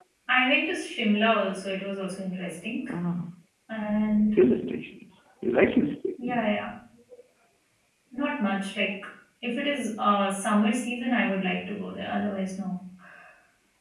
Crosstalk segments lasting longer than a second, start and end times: none

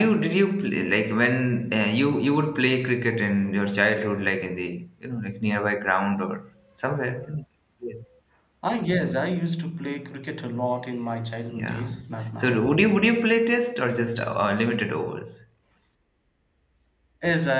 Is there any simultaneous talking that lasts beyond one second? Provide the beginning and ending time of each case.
none

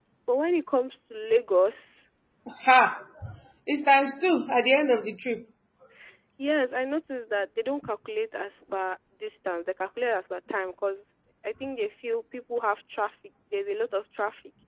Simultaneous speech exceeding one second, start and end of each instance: none

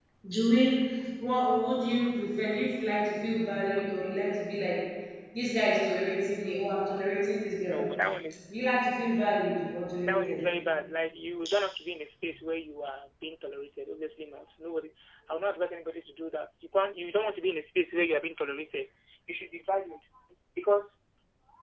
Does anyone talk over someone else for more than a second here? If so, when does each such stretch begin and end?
none

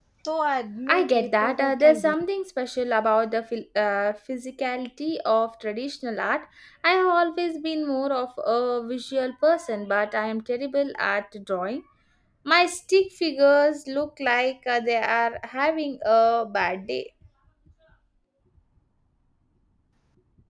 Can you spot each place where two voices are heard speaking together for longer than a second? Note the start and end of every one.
0.9-2.1

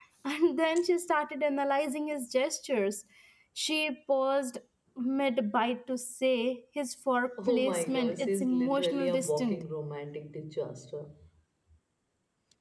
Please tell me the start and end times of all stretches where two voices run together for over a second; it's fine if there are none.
7.5-9.6

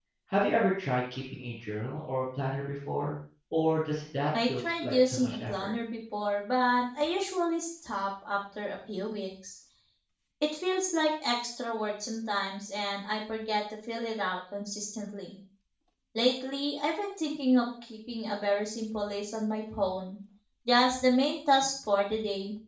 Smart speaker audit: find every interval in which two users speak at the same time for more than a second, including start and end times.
4.5-5.7

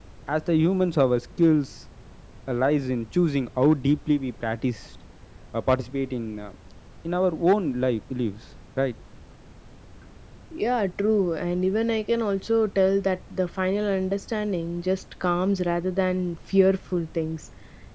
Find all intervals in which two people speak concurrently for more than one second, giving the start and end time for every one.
none

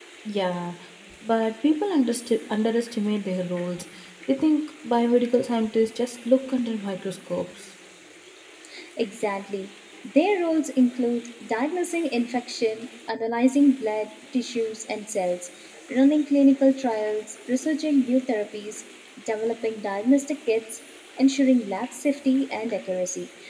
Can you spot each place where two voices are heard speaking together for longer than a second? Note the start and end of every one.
none

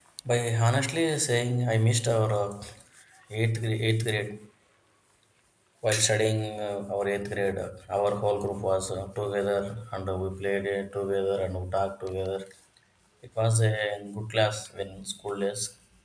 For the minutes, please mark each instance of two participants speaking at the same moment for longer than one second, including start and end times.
none

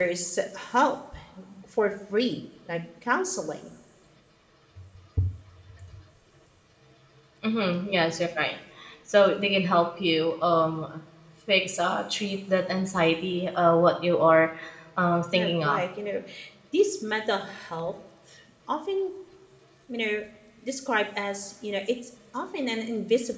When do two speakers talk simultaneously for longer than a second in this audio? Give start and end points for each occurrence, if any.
none

